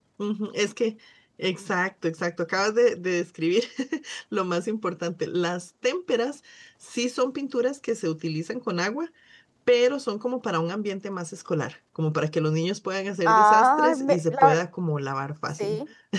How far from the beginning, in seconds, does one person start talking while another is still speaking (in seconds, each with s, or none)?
13.2 s